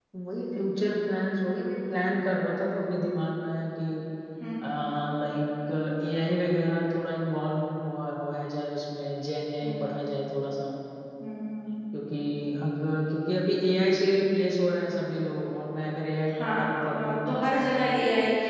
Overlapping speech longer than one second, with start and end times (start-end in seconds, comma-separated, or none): 16.3-17.7